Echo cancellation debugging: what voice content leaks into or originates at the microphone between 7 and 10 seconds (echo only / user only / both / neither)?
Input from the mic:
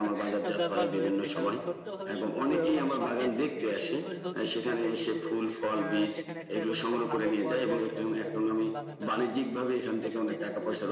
both